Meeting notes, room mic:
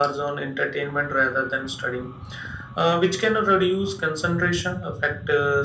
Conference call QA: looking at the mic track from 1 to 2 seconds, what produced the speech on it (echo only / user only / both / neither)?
echo only